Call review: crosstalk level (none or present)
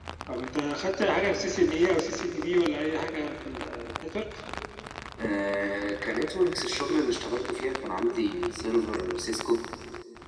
none